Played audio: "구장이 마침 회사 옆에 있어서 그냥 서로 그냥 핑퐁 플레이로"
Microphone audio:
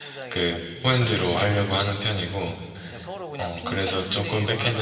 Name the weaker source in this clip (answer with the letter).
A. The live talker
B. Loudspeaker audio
B